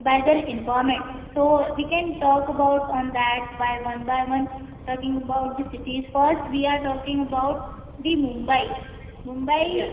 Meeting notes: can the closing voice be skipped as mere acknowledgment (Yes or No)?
Yes